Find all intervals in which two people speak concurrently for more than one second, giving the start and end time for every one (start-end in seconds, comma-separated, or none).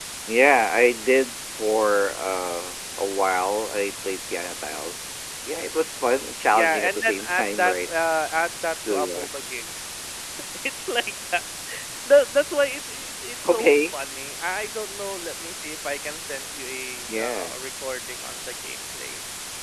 6.5-7.9